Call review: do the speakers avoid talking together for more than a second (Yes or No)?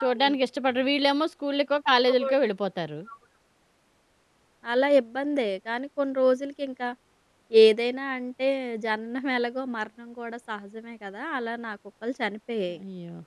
Yes